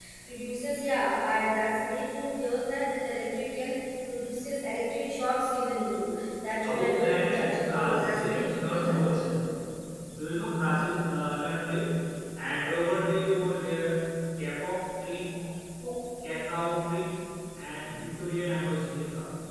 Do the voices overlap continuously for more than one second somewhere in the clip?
Yes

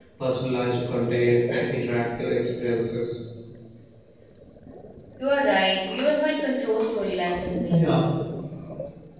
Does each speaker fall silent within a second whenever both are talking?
Yes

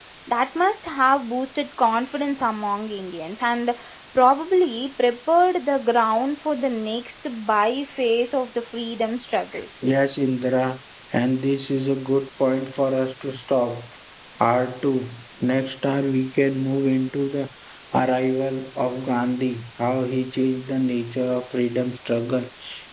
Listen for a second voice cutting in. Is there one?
No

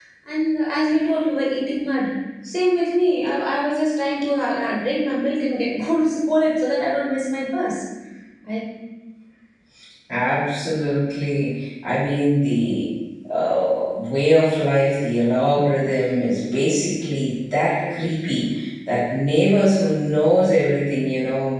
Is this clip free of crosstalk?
Yes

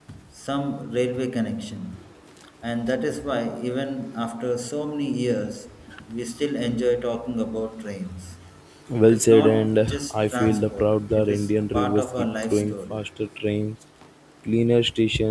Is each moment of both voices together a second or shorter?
No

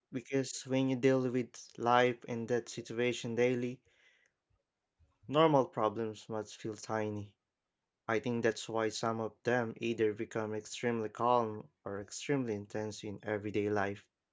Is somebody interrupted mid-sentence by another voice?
No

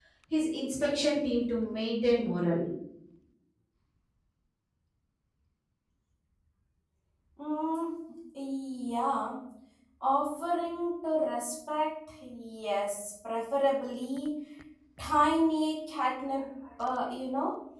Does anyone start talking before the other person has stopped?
No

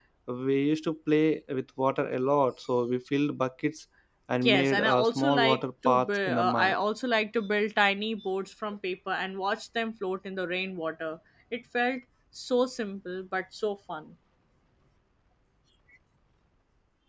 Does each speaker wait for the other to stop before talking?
No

